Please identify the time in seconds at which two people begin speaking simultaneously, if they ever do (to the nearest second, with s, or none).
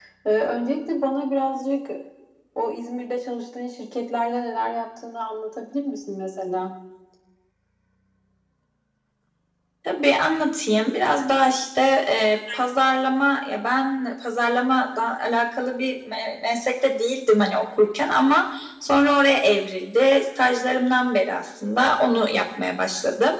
none